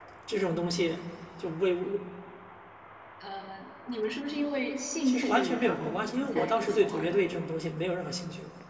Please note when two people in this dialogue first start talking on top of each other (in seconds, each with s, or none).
5.0 s